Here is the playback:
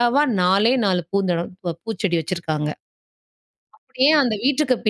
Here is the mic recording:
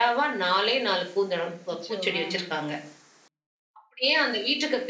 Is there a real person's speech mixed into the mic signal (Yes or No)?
Yes